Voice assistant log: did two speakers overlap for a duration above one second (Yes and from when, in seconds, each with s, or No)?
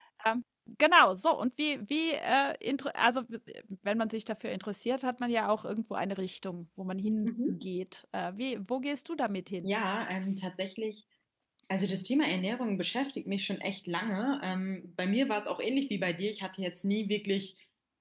No